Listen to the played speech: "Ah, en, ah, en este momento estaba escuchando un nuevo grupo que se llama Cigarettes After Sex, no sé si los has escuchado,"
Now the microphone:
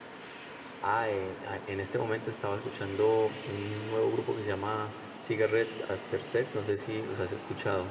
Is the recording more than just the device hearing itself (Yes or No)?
No